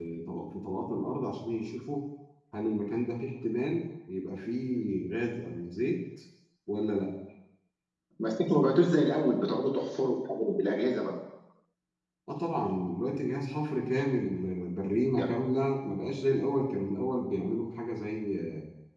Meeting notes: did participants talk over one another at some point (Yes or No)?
No